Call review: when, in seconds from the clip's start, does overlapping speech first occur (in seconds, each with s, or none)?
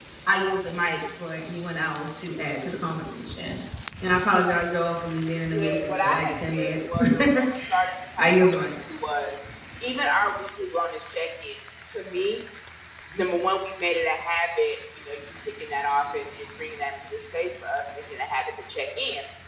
5.4 s